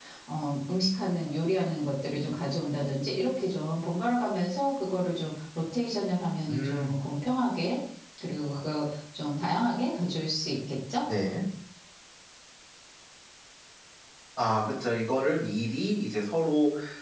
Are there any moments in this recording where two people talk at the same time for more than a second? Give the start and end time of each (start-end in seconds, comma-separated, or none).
none